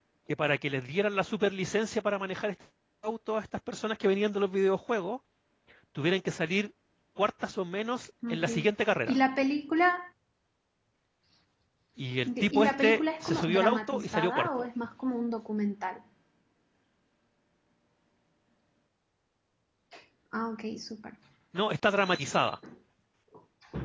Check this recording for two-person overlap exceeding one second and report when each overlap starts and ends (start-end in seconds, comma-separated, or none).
12.4-14.7